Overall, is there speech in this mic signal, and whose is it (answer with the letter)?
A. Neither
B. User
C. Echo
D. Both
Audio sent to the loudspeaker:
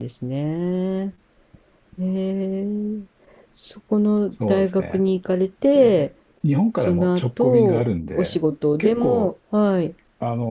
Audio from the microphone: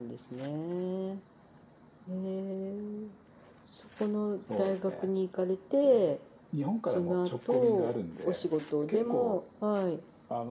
C